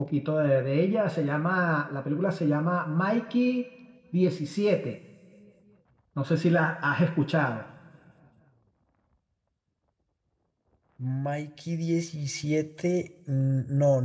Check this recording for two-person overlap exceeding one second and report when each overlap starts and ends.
none

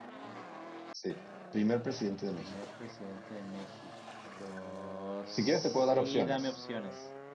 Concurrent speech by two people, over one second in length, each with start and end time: 5.3-6.6

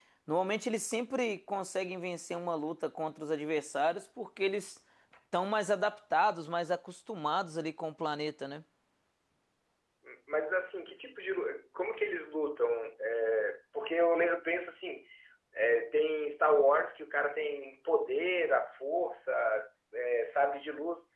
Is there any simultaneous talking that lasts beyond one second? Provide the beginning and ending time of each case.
none

